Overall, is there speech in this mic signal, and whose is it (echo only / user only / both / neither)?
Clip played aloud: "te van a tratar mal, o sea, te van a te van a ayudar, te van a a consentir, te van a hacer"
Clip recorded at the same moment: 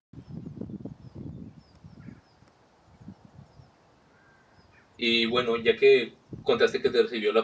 user only